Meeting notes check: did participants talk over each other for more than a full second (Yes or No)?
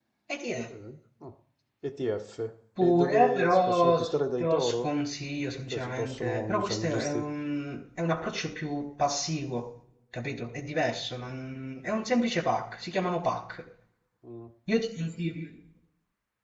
Yes